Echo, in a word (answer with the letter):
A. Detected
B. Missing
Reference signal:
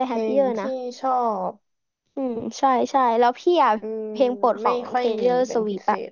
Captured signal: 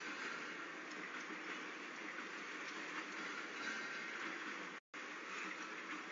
B